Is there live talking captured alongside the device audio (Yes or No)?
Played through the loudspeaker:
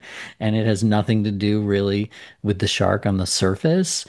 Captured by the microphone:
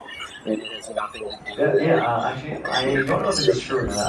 Yes